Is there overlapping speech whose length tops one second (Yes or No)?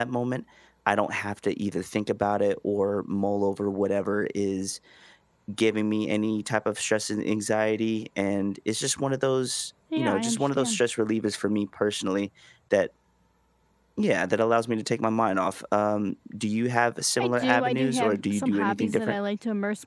Yes